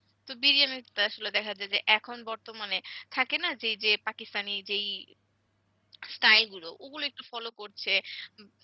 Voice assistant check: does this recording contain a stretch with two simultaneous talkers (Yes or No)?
No